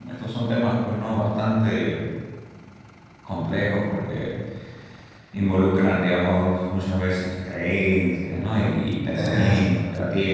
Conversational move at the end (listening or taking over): listening